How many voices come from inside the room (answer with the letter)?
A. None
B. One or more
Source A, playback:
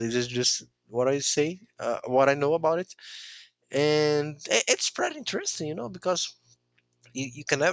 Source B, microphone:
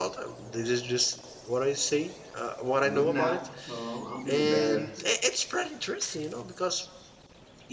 B